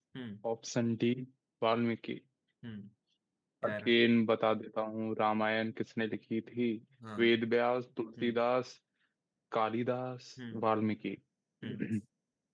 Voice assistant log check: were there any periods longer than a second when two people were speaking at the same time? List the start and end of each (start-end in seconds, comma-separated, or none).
none